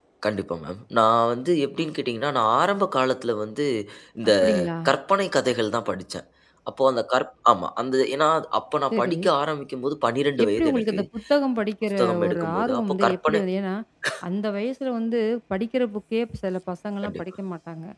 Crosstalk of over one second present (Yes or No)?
Yes